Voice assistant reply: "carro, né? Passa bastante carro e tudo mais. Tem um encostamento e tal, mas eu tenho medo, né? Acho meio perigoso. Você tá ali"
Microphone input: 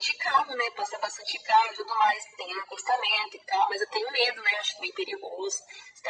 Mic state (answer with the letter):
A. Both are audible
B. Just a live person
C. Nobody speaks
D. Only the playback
D